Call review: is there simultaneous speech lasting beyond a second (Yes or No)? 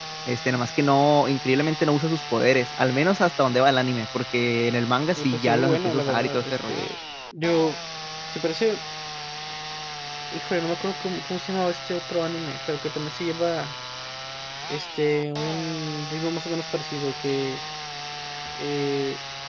Yes